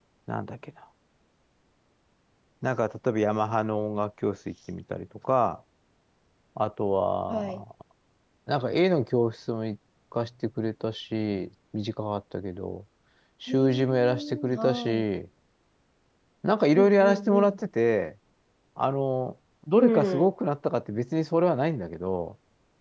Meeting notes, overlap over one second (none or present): present